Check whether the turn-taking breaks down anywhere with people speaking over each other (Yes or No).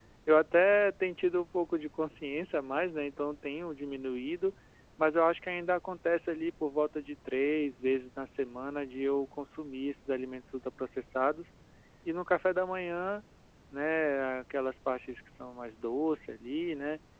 No